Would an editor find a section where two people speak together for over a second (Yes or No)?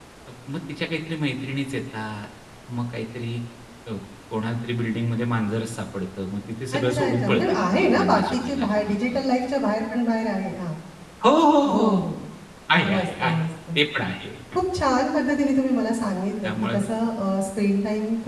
Yes